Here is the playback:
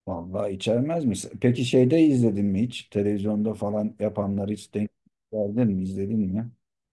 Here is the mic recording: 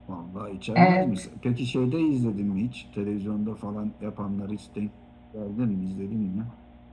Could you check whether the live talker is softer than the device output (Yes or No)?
No